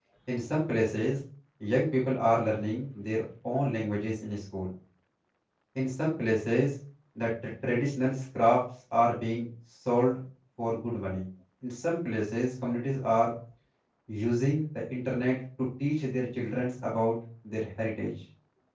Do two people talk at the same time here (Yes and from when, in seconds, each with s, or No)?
No